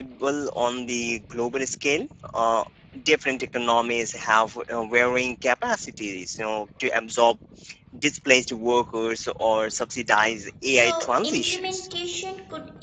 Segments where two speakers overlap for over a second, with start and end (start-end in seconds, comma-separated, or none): 10.7-11.9